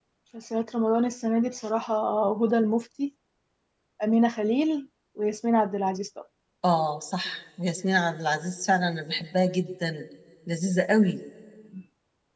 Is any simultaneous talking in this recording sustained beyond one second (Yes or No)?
No